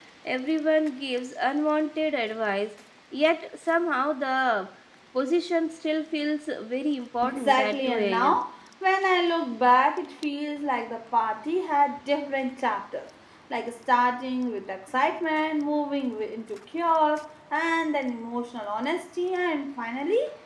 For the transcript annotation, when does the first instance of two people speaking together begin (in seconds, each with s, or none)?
7.2 s